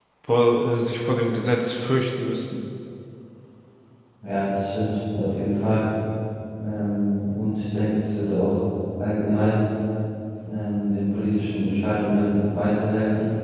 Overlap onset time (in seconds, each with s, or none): none